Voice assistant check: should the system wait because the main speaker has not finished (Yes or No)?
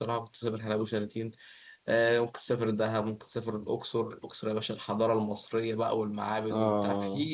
Yes